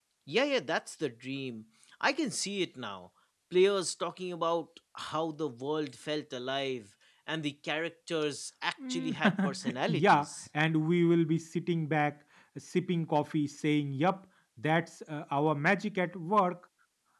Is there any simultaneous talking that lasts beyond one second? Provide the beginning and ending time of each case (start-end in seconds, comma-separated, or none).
8.9-10.3